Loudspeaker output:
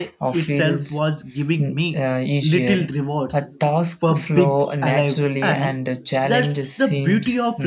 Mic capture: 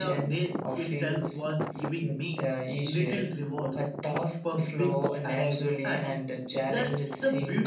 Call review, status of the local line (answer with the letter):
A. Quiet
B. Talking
A